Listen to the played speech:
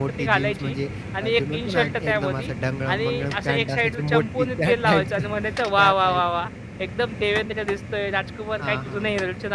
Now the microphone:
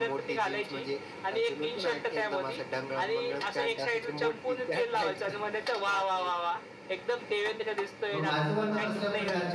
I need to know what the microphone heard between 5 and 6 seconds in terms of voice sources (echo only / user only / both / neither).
echo only